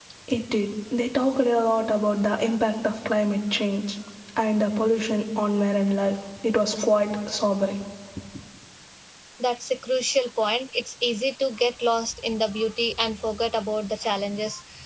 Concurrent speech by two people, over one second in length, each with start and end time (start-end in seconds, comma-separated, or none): none